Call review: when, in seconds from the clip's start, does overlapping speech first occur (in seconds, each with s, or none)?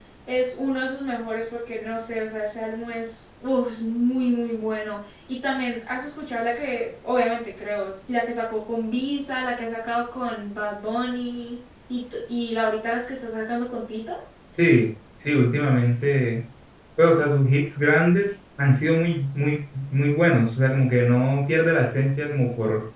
none